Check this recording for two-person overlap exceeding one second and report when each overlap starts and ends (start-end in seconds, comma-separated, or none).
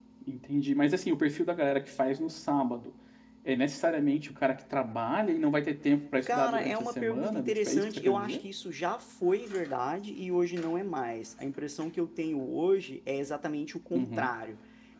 6.3-8.4